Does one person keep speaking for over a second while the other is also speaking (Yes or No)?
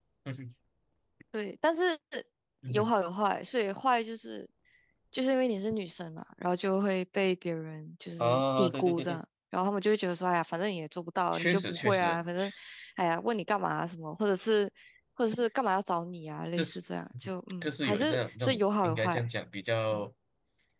Yes